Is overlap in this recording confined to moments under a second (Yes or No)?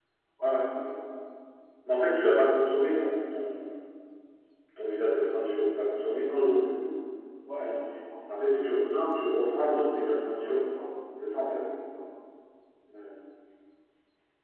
Yes